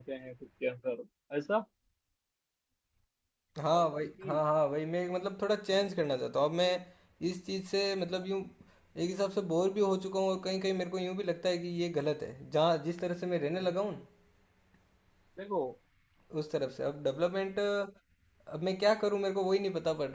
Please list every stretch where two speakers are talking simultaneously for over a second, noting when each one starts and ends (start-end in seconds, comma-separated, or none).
none